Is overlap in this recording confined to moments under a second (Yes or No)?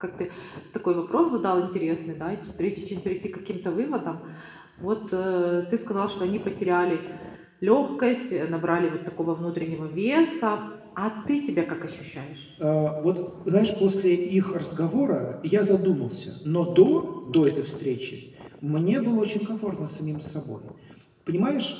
Yes